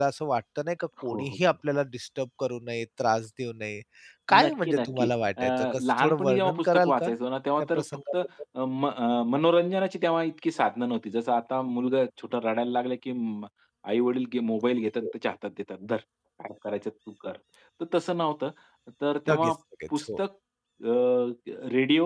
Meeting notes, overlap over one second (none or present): present